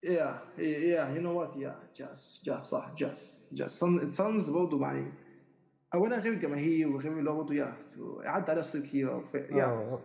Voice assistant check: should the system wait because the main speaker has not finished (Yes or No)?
No